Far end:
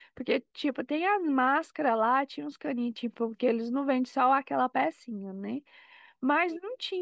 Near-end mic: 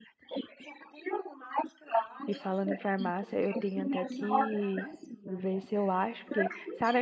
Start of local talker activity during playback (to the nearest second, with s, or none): 2 s